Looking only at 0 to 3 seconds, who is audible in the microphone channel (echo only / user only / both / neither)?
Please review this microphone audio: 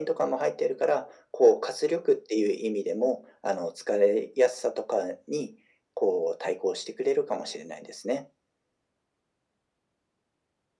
echo only